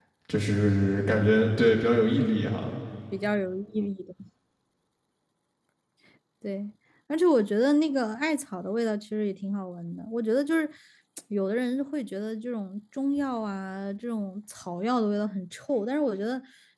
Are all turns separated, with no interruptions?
Yes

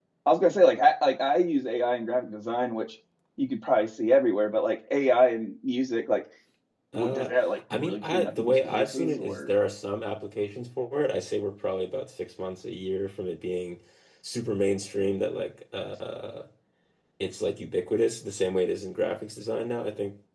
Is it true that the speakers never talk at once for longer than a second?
No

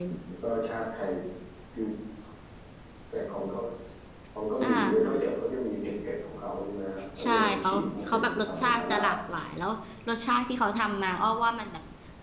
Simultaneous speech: Yes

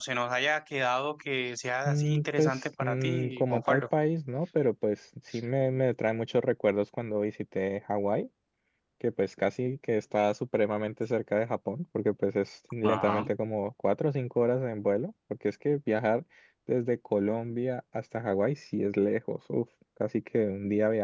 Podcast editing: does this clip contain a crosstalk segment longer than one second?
Yes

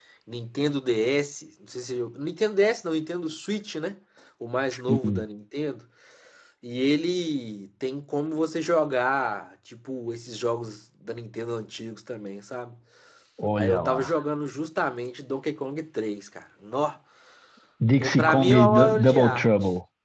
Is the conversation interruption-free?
No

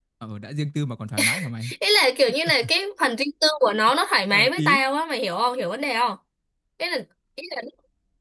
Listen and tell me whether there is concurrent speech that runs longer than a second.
No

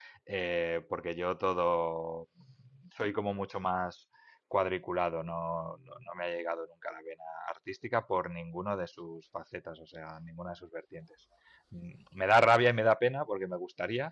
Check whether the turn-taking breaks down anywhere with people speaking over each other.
No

